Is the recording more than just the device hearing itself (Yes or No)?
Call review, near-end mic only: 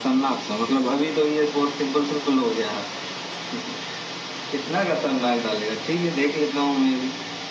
No